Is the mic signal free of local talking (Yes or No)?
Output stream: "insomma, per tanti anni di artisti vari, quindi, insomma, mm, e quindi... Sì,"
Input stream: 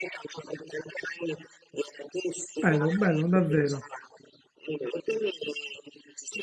No